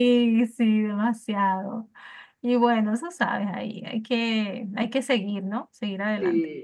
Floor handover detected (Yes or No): Yes